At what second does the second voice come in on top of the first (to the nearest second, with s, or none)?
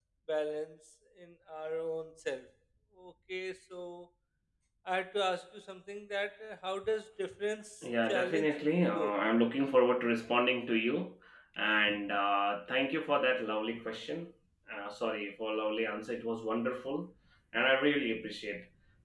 8 s